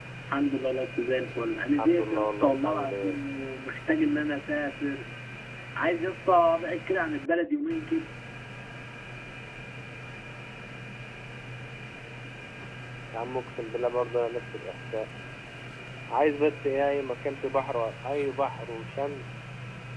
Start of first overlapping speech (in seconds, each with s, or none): 1.8 s